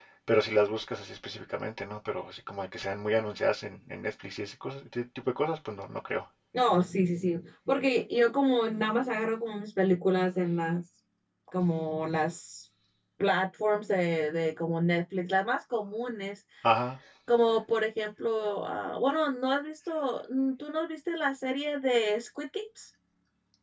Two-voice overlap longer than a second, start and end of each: none

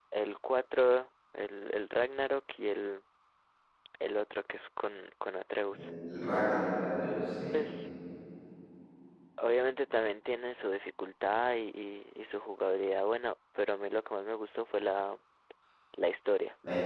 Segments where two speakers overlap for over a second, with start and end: none

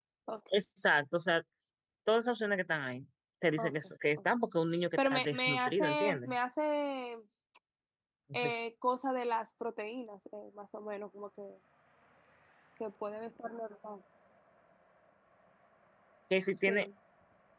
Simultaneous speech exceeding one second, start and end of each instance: 5.0-6.3

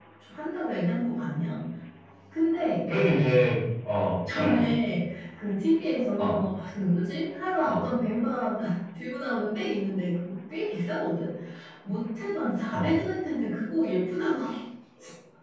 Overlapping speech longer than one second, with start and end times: none

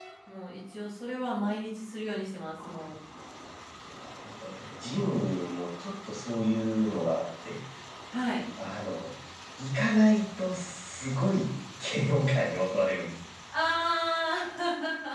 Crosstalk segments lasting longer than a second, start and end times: none

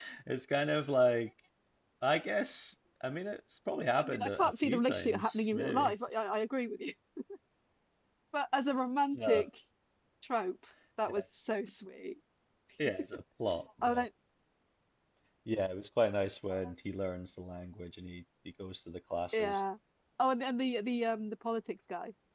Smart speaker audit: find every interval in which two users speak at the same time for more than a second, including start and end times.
3.9-5.9

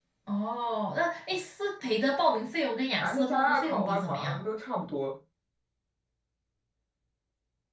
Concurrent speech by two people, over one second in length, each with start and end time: 3.0-4.4

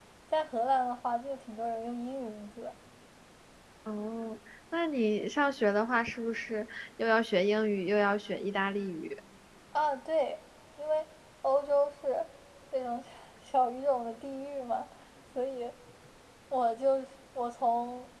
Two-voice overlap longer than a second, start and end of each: none

